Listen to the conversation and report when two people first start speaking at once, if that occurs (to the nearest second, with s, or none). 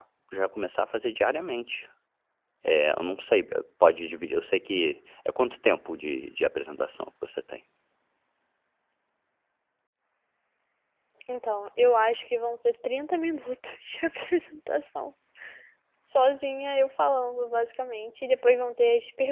none